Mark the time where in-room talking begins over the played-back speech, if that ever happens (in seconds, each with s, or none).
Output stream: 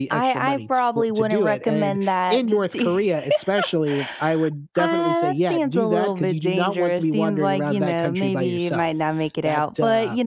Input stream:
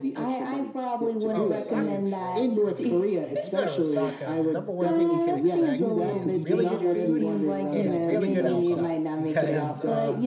1.3 s